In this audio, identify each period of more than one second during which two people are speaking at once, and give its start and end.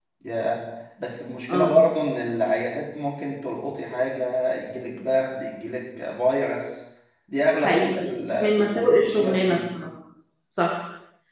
7.5-9.6

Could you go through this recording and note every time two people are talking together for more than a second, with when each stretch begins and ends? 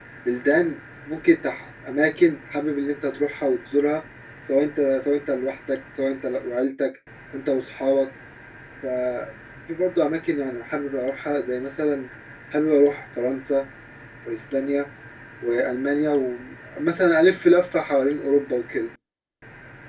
none

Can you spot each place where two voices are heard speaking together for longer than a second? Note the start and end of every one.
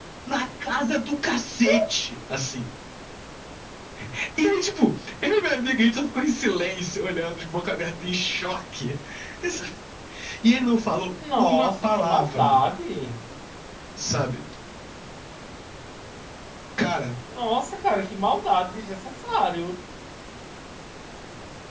11.4-12.6

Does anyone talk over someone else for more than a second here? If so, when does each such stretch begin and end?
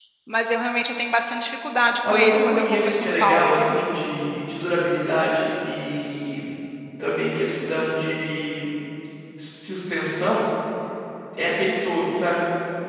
2.1-3.7

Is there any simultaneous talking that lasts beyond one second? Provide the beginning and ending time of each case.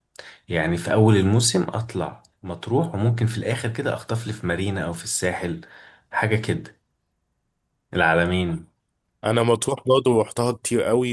none

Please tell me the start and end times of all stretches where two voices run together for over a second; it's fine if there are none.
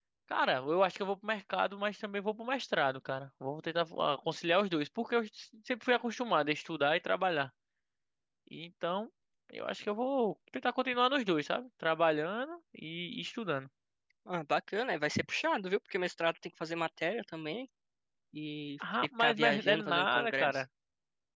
19.0-20.6

